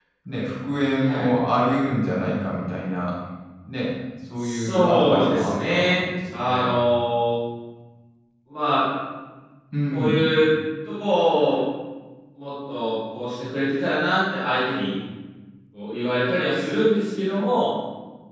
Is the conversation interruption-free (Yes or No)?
No